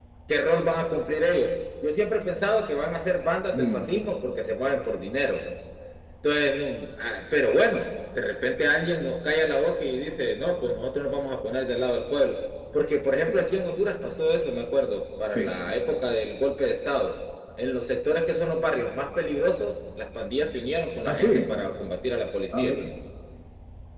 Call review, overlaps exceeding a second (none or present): none